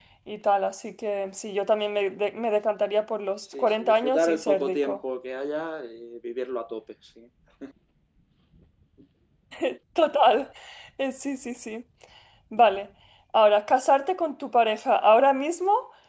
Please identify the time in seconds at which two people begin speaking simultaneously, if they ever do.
3.5 s

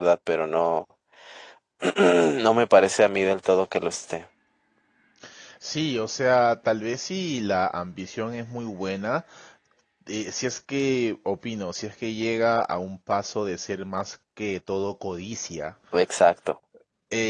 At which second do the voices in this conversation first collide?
none

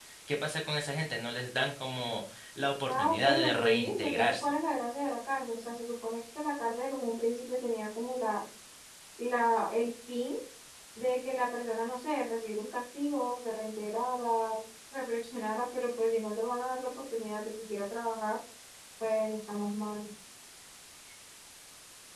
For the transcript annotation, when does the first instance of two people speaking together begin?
2.9 s

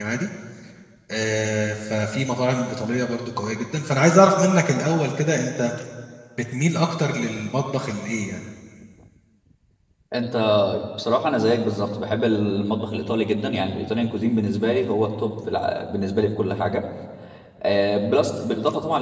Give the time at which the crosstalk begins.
none

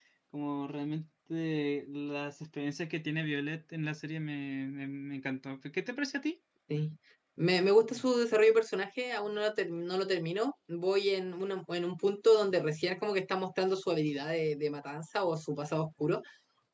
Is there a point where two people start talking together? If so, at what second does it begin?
none

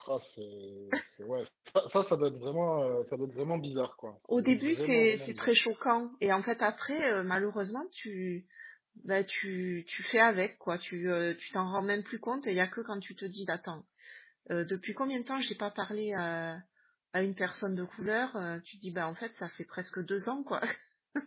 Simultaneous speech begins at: 4.3 s

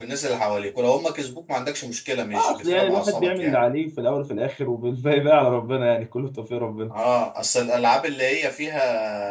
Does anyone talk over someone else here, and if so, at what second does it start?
2.3 s

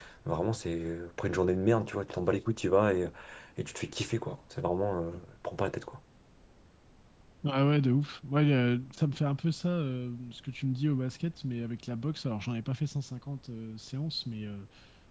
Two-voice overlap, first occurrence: none

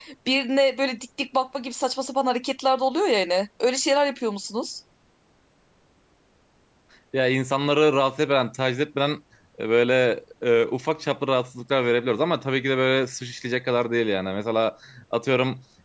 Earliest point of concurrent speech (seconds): none

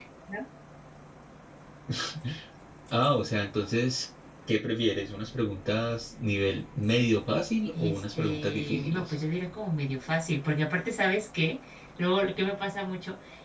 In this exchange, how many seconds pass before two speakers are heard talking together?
7.7 s

